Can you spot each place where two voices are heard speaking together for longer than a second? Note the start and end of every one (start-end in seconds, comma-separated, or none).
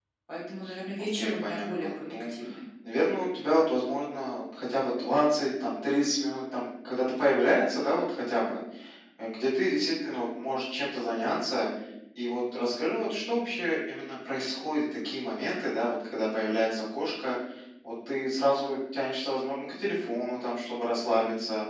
1.0-2.4